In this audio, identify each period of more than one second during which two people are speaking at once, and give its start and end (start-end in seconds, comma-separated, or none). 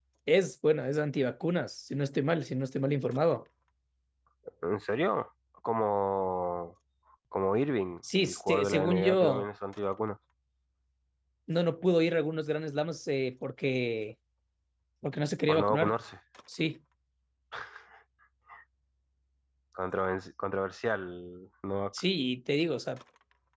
8.2-9.4